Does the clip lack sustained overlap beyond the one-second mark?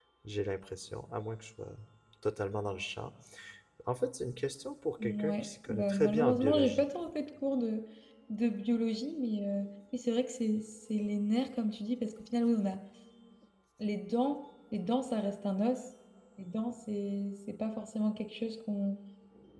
No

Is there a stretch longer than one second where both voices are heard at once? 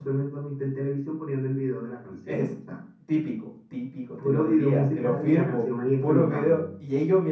Yes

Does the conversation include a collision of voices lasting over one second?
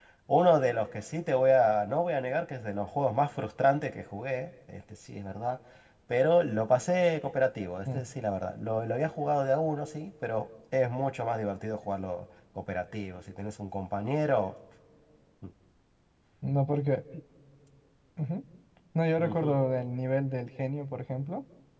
No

